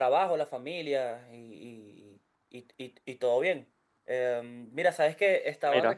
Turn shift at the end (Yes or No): No